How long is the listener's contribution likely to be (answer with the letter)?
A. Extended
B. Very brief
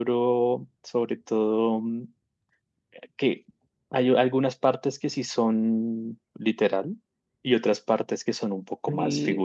A